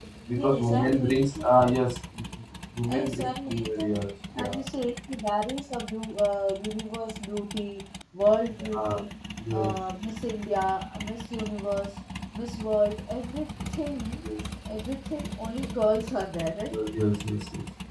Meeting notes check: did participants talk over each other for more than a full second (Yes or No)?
Yes